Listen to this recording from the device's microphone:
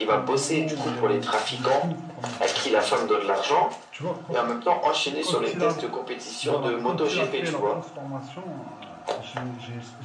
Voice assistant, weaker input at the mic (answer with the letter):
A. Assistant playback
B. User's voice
B